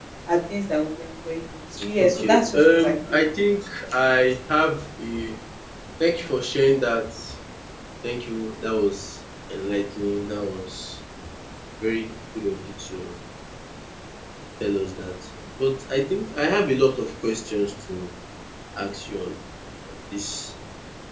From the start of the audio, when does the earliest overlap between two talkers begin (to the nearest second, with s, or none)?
2 s